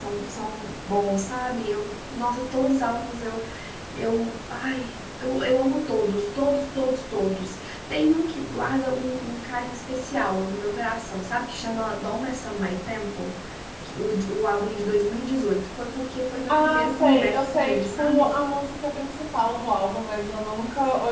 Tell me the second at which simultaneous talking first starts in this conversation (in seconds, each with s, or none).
16.5 s